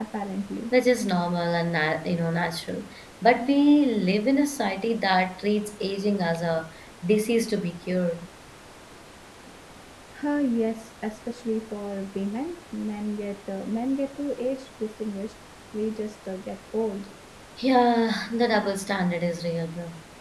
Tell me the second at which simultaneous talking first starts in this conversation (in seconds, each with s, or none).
none